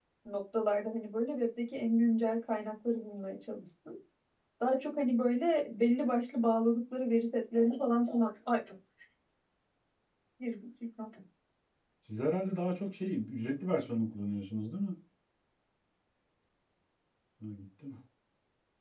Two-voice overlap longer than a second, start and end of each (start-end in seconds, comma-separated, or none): none